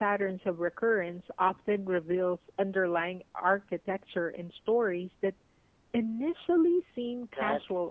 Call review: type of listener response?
taking over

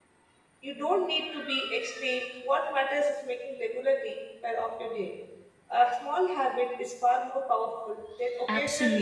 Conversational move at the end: taking over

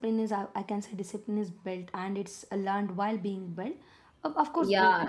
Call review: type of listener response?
taking over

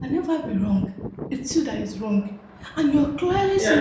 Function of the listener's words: listening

